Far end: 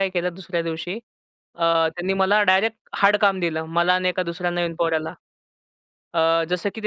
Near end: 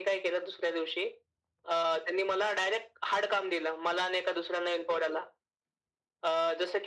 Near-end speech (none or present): none